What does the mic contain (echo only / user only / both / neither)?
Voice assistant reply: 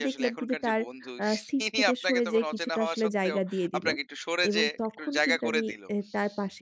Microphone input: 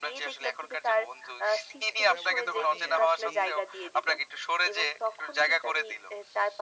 both